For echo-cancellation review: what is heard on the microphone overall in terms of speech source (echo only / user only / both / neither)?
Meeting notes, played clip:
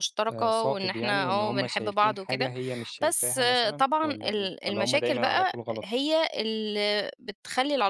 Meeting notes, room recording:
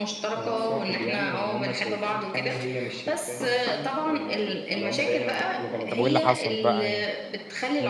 both